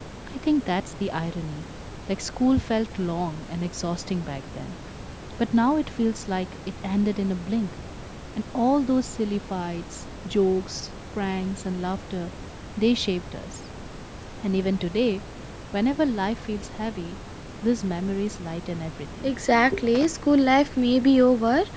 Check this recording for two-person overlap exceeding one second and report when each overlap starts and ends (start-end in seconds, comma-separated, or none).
none